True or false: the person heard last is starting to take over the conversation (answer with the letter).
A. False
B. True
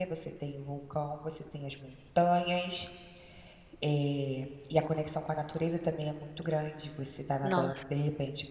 A